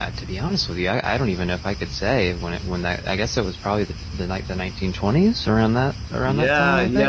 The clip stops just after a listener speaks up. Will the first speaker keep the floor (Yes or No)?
No